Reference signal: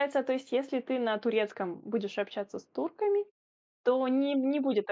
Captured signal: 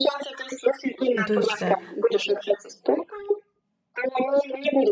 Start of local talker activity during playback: 1.2 s

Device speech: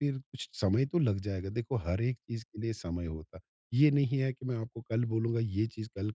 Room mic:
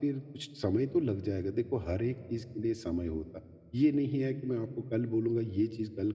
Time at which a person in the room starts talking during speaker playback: none

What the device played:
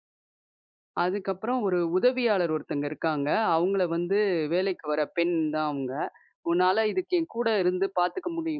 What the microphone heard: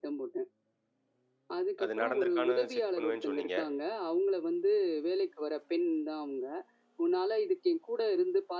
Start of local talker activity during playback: 1.8 s

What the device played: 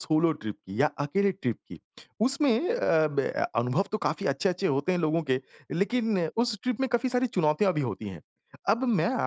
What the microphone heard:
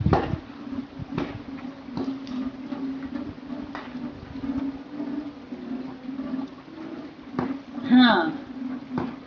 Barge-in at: 7.8 s

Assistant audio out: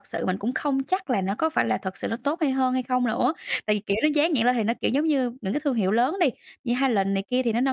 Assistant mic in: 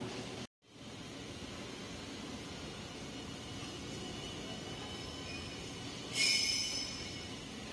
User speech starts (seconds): none

